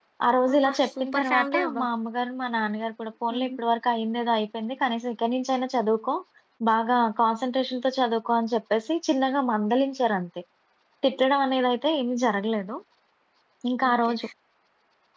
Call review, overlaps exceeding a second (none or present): present